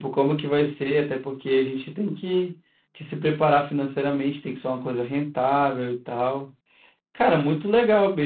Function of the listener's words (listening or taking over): listening